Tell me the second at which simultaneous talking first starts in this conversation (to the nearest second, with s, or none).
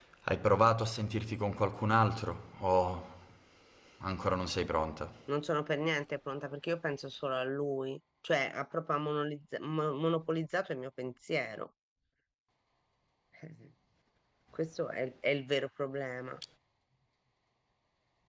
none